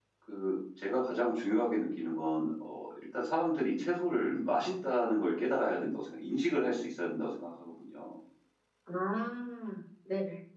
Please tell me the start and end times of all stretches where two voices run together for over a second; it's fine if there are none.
none

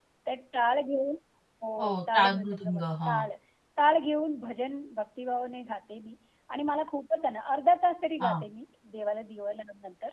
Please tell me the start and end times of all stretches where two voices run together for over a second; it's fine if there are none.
1.8-3.2

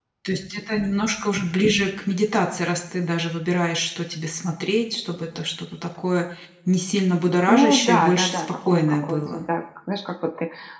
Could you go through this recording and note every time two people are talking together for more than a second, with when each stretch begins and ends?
7.5-9.4

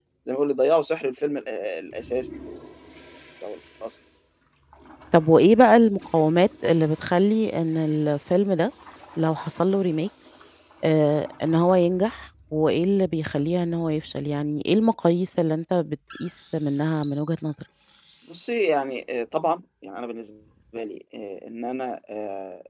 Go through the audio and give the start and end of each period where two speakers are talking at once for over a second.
none

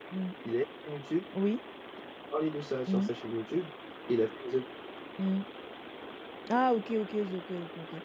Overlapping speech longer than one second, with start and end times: none

